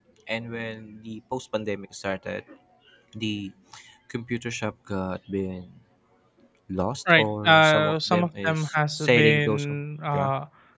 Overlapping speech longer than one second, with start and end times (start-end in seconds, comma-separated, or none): 7.1-9.7